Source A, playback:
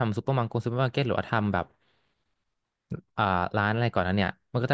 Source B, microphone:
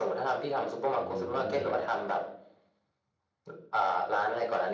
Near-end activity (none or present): present